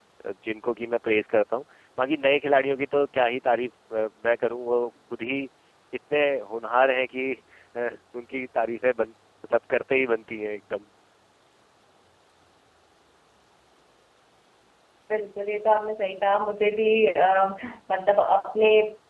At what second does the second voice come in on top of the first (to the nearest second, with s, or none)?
none